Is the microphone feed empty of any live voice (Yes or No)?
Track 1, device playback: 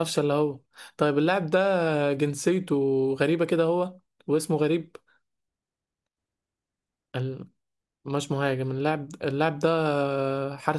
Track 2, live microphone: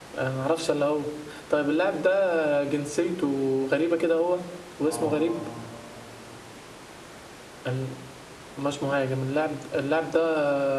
No